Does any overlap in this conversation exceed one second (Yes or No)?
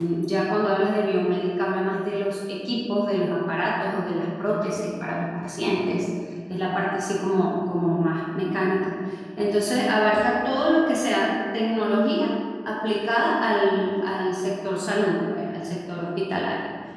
No